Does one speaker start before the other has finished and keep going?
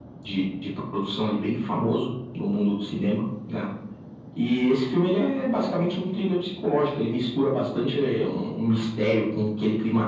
No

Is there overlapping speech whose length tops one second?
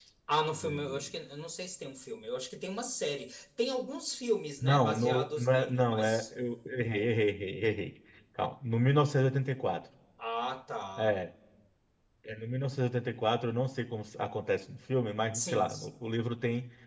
Yes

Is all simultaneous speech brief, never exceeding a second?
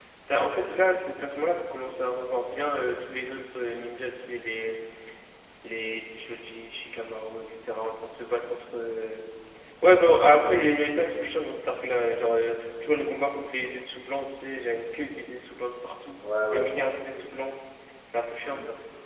No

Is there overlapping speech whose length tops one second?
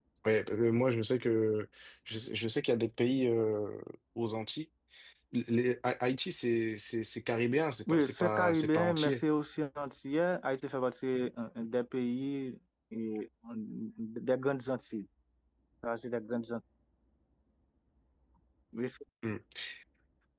Yes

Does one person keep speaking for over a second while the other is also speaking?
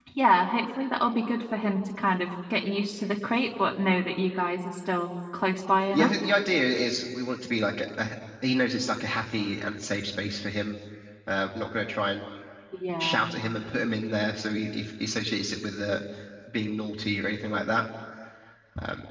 No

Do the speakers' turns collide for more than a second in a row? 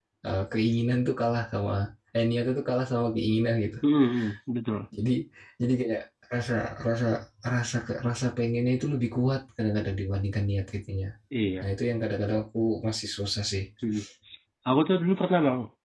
No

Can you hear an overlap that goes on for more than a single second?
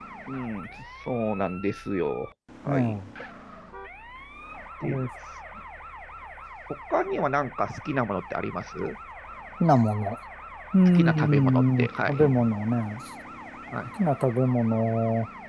Yes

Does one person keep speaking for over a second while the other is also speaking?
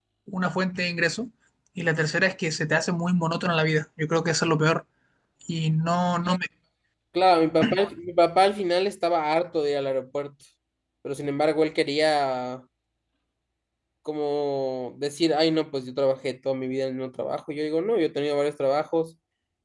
No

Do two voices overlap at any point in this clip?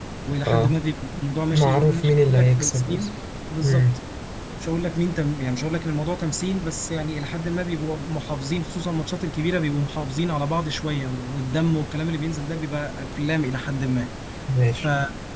Yes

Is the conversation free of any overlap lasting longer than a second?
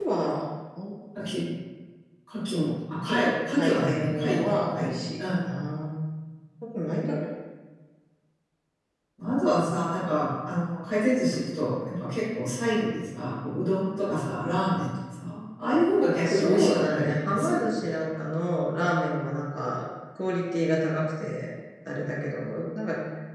No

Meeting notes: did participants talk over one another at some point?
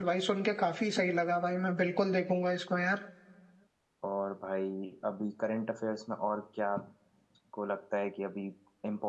No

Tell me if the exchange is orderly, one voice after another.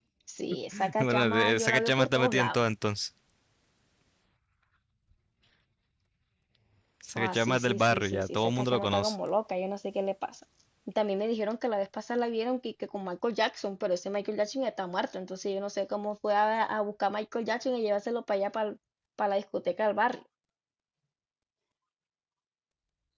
No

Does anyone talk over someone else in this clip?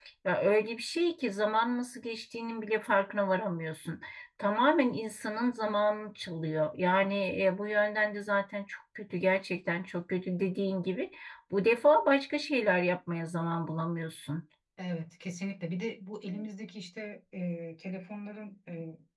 No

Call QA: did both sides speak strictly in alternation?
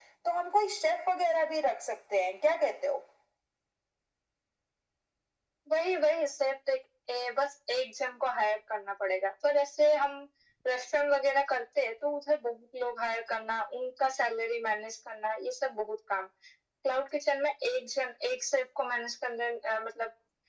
Yes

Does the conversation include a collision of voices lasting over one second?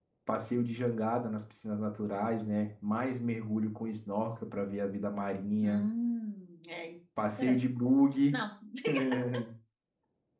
No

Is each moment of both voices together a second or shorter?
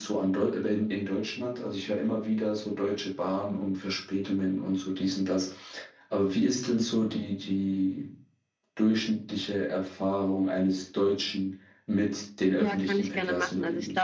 No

